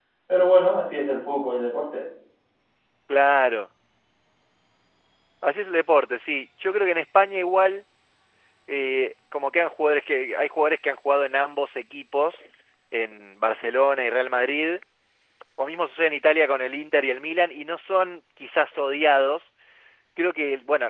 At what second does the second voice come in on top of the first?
none

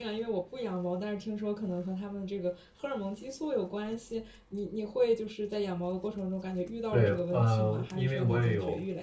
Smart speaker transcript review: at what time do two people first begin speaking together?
7 s

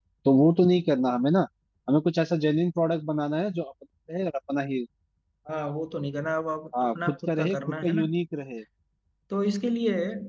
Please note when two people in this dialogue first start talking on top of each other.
7 s

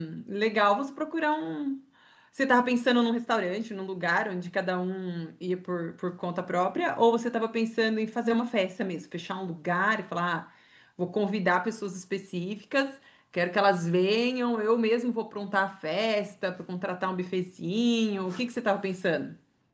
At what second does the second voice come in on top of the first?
none

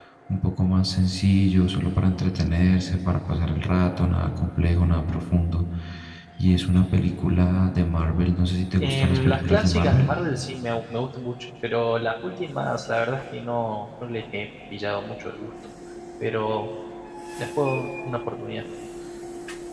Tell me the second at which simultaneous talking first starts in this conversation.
9 s

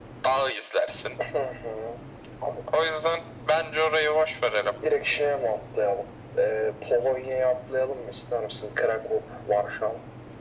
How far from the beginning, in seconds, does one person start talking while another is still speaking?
none

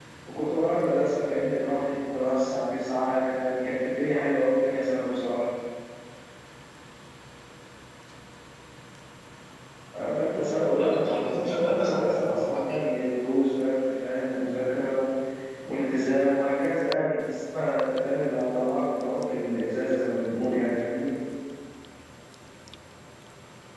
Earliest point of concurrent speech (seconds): 10 s

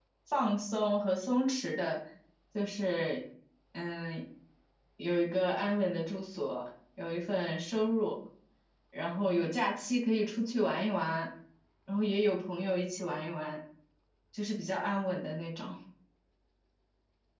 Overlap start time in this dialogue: none

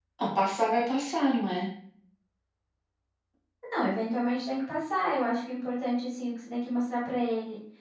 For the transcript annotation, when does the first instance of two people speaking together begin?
none

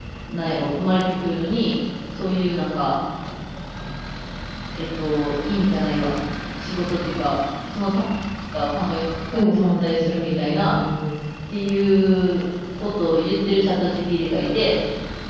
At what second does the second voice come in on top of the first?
9 s

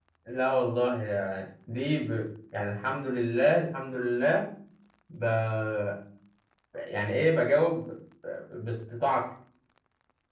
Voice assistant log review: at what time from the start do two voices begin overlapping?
none

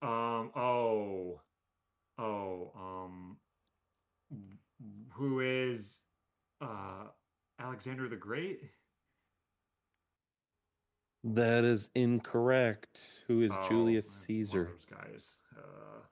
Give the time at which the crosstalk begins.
14 s

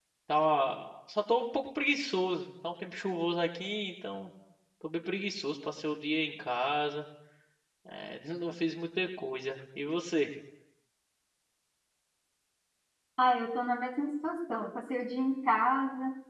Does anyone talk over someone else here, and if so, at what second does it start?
none

